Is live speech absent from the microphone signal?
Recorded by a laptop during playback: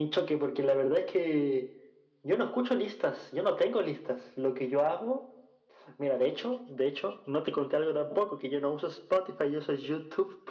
Yes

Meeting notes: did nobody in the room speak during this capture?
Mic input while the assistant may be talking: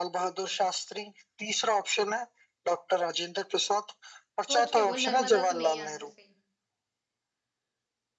No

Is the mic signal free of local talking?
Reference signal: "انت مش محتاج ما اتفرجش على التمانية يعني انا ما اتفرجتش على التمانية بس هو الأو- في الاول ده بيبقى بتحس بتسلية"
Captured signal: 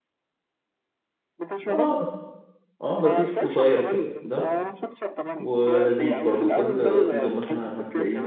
No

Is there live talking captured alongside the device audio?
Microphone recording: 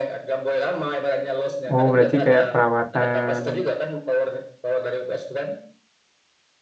Yes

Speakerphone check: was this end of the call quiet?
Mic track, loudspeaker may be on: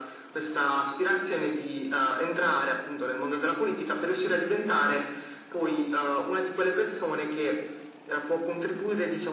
Yes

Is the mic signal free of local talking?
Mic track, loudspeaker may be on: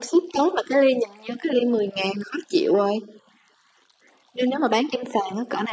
Yes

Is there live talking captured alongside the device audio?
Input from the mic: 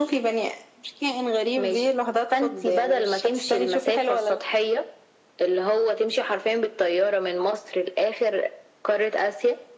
No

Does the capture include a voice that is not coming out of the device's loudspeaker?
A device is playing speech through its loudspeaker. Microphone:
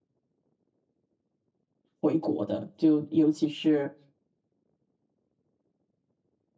Yes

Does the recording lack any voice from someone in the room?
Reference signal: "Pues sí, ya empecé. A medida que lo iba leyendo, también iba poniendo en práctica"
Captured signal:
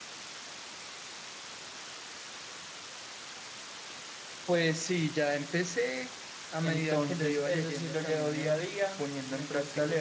No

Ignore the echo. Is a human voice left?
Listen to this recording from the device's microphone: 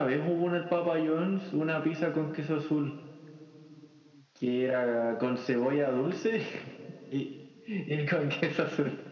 No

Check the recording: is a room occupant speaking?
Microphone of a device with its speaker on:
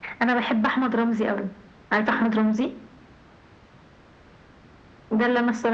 No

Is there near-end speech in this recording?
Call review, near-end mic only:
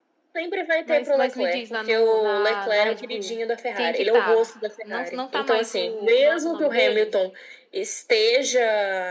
Yes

